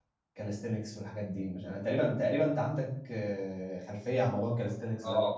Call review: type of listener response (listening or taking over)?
taking over